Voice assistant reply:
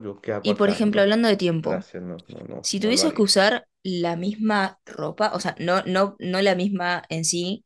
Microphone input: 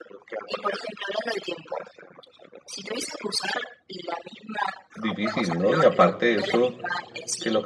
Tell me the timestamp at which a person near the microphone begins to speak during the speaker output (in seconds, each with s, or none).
4.9 s